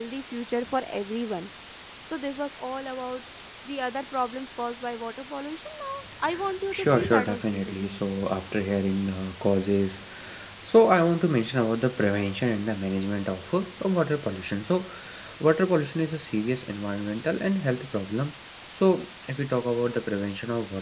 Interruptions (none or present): present